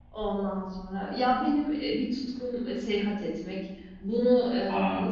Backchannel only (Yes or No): Yes